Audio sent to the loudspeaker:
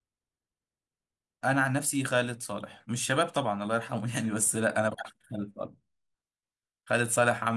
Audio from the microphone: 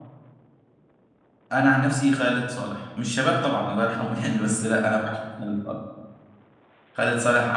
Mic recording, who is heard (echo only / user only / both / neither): echo only